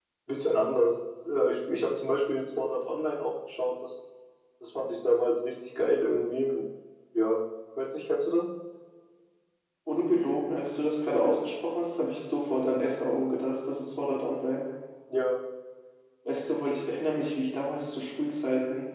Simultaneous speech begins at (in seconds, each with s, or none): none